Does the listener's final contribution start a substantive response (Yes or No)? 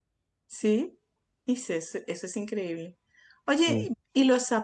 No